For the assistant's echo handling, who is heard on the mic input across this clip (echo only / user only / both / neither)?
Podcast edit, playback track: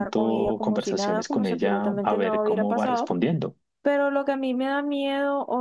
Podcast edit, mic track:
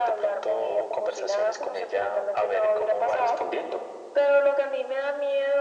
echo only